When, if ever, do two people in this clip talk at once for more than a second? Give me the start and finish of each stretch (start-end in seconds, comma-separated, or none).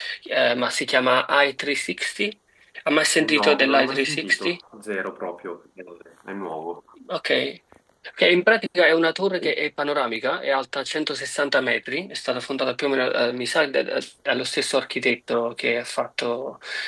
3.3-4.6